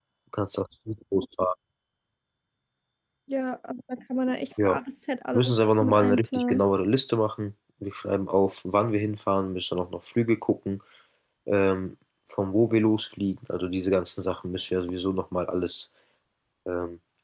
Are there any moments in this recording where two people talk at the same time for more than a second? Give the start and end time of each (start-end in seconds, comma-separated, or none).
5.3-6.6